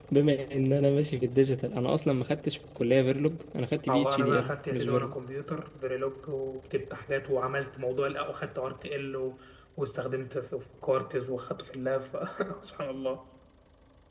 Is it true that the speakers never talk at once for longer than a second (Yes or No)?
No